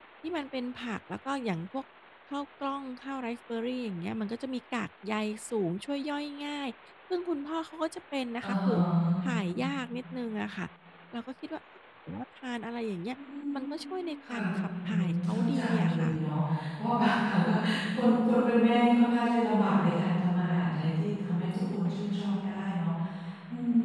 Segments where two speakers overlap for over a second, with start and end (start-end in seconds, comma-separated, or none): 14.8-16.1